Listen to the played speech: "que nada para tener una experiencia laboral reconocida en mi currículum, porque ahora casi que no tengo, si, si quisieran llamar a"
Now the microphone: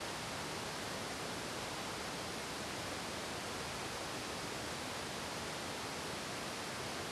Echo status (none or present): none